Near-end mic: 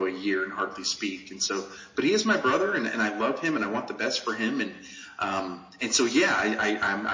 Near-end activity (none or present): none